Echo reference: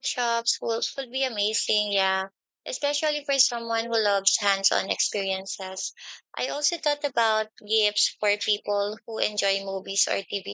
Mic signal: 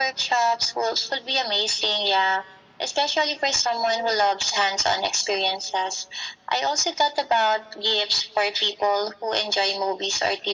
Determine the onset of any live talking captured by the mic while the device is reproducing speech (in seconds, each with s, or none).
none